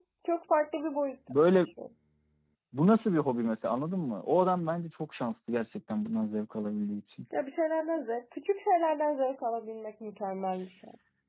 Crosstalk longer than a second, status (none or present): none